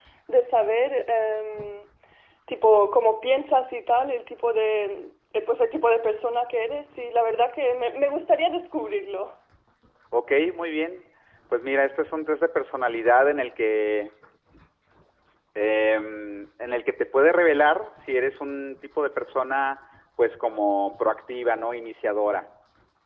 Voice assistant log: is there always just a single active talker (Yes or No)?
Yes